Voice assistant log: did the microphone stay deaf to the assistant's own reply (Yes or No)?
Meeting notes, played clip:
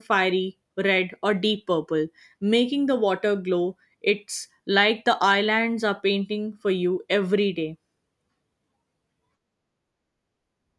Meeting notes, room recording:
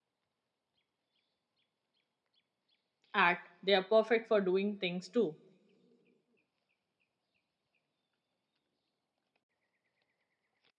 Yes